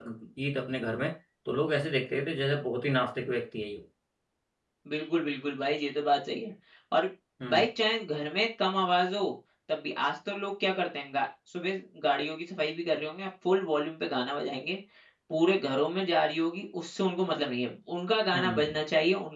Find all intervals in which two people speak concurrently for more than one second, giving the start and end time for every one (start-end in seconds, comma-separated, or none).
none